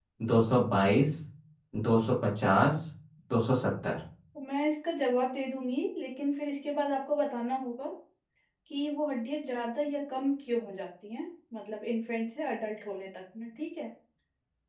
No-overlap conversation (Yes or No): Yes